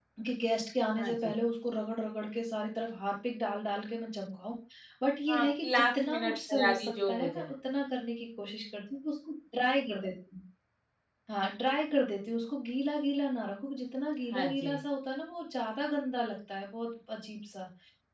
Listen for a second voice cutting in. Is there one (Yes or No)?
Yes